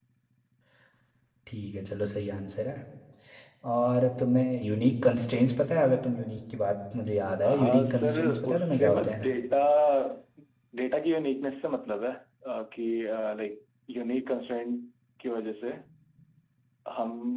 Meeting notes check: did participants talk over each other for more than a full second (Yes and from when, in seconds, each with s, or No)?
Yes, from 7.4 s